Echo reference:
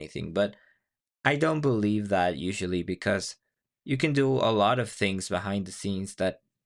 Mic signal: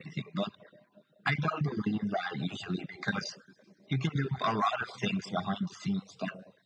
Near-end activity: none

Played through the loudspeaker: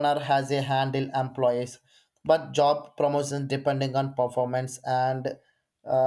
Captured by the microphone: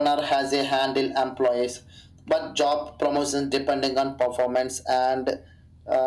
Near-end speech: none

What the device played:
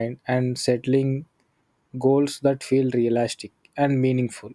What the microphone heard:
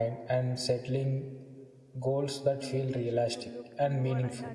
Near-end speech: present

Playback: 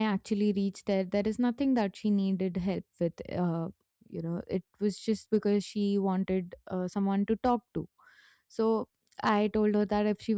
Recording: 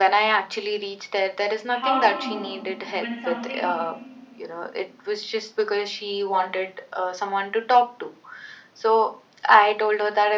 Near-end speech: present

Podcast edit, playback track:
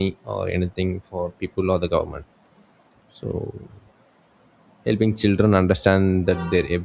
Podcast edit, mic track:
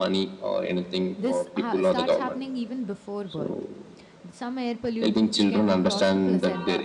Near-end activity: present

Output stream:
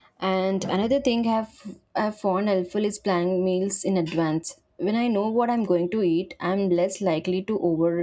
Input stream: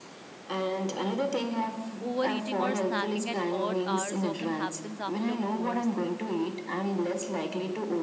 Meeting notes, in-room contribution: present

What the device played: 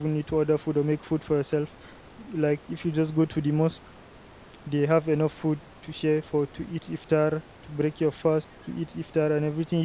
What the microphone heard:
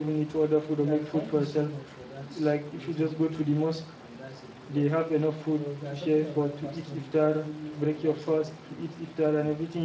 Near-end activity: present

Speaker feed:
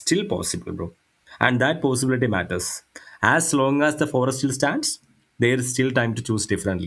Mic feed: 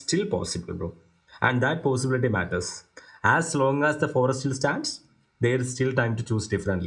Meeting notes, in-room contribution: none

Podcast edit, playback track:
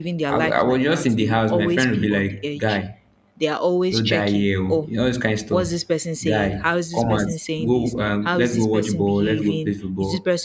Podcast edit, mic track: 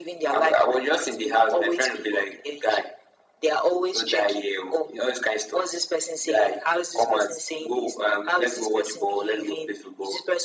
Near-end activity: none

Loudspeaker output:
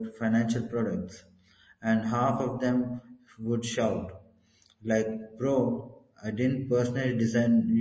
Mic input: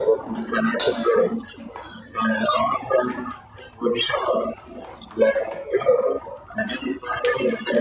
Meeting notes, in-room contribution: none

